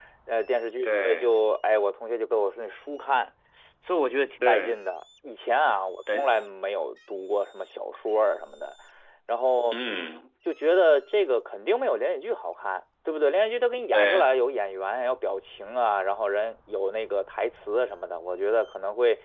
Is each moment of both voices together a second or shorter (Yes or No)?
Yes